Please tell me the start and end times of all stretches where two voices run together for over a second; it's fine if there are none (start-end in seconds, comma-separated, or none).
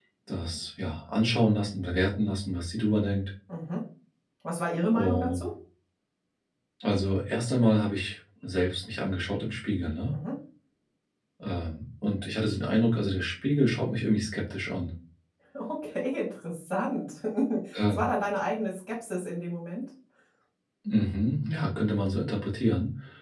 none